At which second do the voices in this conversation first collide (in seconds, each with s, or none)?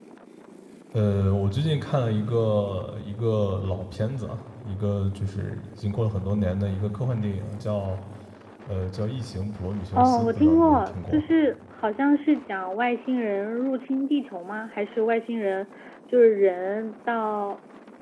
9.9 s